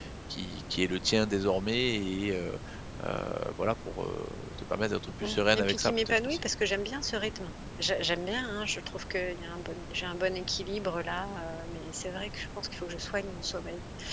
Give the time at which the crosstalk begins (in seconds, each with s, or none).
5.2 s